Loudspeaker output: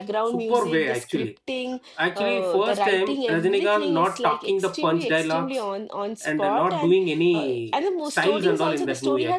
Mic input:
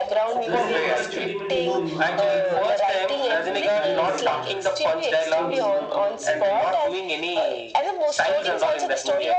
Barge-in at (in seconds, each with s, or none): 0.5 s